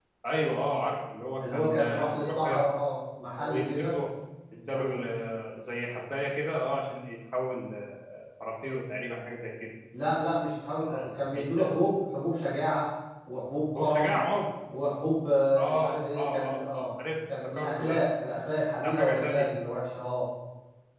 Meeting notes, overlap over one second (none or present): present